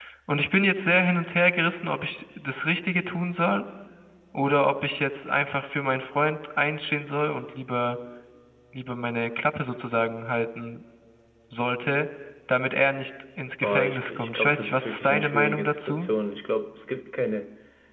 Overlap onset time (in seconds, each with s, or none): 13.6 s